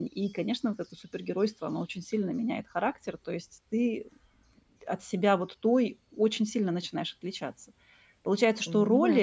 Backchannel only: Yes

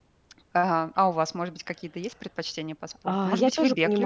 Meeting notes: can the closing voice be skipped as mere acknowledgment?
No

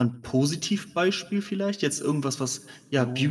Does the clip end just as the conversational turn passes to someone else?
No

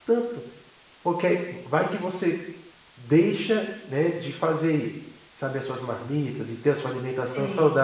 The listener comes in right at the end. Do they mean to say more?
No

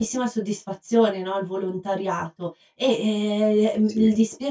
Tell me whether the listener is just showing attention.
Yes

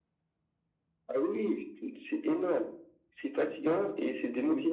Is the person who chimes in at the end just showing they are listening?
No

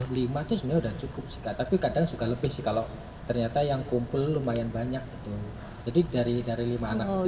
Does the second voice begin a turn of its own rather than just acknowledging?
No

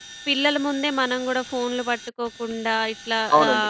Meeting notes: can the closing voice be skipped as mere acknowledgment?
No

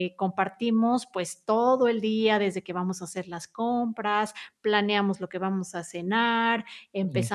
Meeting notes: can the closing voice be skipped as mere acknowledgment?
Yes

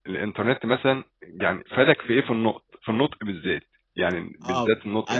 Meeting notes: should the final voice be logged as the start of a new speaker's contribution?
Yes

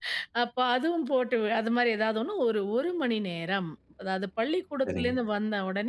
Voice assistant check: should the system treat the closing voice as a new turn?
No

